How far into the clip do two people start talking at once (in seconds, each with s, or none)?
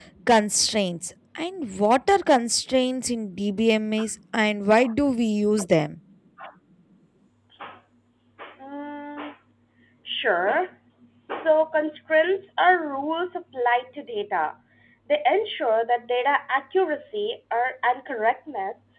none